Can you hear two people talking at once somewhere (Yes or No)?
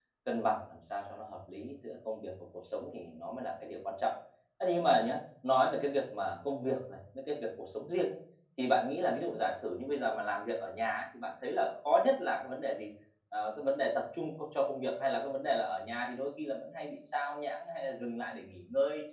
No